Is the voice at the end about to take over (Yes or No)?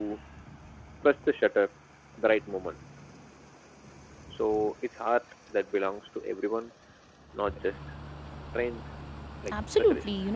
Yes